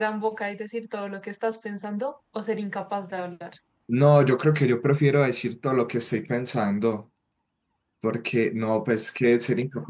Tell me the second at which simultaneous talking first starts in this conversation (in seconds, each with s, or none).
none